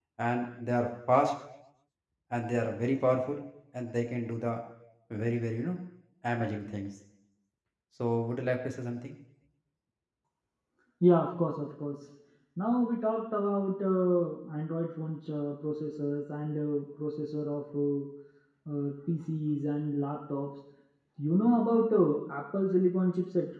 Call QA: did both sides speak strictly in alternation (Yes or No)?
Yes